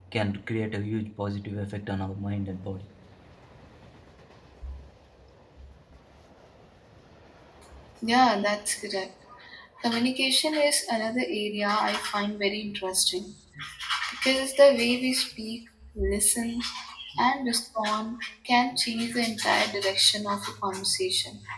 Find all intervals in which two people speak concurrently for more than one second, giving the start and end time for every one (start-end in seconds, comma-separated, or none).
none